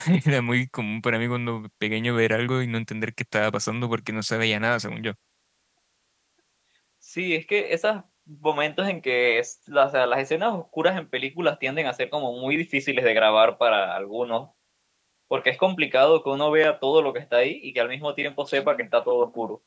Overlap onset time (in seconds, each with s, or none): none